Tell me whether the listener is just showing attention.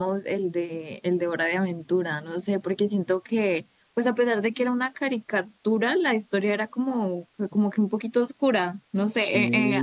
Yes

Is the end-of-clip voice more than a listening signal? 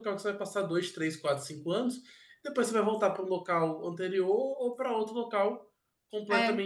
No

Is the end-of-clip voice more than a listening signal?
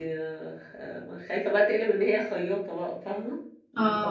No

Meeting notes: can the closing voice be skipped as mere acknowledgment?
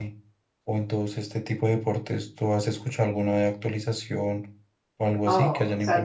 No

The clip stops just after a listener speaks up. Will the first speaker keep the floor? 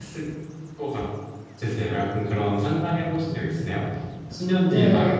No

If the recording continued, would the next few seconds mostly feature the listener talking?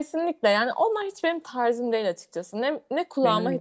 No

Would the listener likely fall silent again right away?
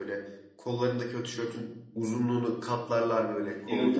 No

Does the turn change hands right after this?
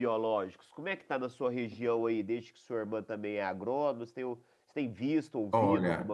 Yes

